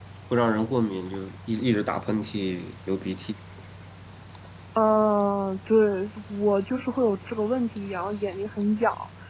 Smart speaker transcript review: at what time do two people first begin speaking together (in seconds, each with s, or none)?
none